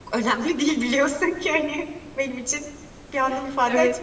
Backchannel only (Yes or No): No